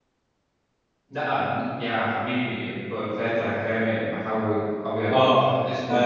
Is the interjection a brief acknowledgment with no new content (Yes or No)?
No